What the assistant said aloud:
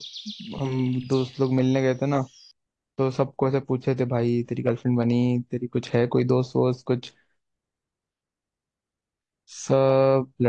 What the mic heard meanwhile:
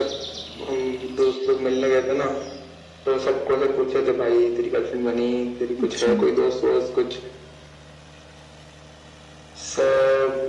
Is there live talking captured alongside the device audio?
Yes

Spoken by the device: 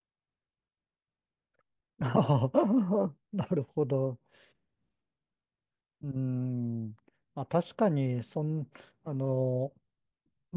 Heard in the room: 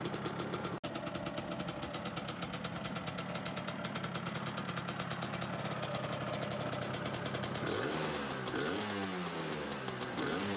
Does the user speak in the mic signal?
No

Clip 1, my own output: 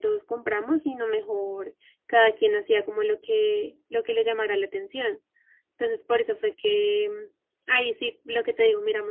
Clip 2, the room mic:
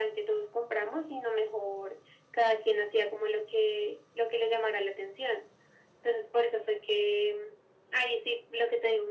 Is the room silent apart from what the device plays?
Yes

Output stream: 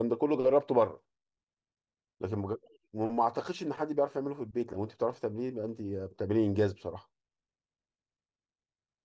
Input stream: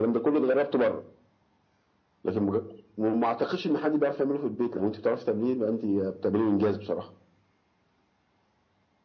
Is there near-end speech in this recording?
No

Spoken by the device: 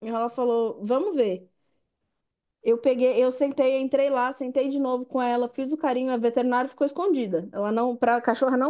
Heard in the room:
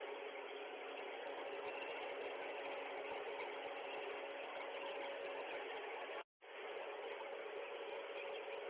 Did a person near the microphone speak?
No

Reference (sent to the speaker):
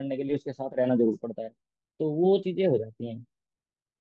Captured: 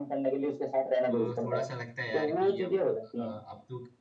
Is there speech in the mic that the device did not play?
Yes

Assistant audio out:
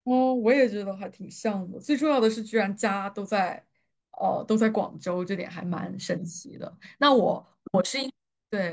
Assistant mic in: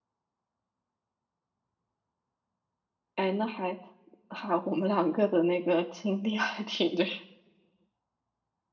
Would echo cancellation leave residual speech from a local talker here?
Yes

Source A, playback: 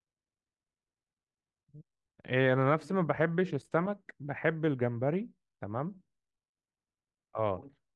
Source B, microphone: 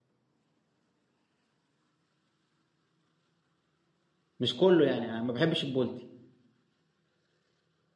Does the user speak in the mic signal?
Yes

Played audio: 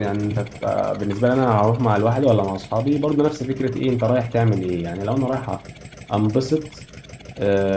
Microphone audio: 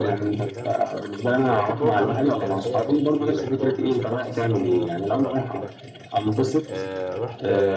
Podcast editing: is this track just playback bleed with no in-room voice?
No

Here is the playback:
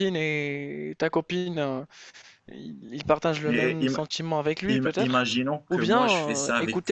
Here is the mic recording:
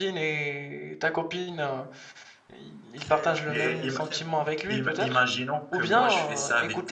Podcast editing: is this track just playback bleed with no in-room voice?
No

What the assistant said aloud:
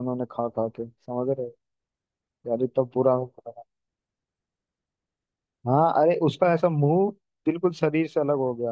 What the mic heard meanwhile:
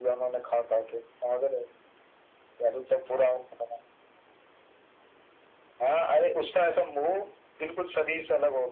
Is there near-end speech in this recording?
No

